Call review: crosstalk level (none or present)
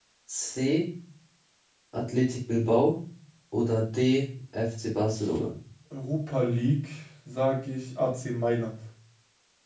none